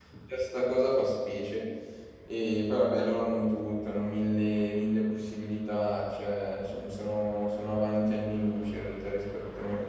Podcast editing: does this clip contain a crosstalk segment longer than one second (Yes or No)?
No